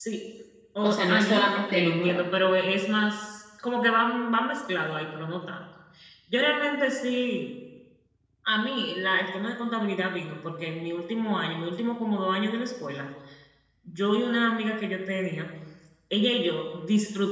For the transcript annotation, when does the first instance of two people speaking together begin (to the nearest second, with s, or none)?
1 s